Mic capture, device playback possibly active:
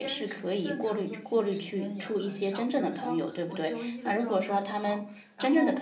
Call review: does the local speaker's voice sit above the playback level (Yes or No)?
Yes